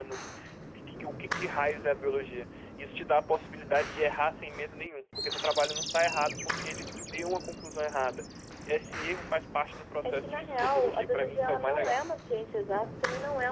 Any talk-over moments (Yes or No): Yes